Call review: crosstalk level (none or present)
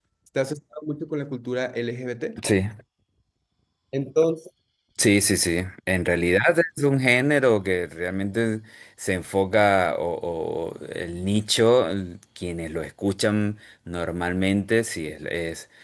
none